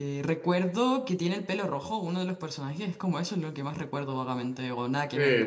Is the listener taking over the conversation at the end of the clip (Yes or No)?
Yes